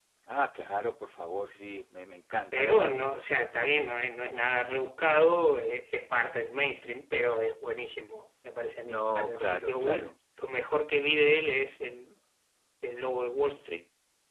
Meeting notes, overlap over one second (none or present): present